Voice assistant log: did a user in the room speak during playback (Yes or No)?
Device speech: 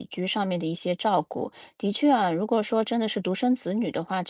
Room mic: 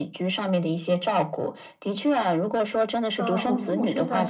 Yes